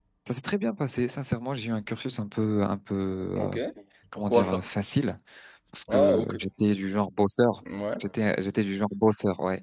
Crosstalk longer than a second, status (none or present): none